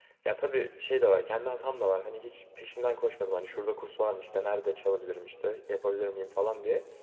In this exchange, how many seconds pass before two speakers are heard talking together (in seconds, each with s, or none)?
none